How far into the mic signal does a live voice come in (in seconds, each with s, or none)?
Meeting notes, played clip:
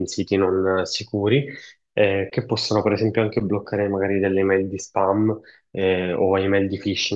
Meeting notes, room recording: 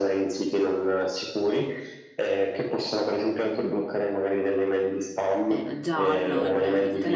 5.4 s